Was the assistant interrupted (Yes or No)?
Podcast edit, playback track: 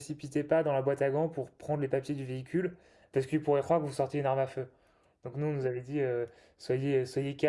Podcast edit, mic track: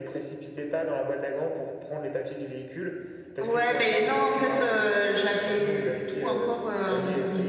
Yes